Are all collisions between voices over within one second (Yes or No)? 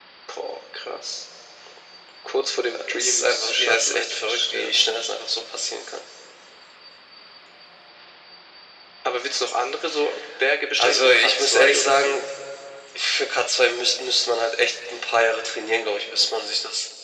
No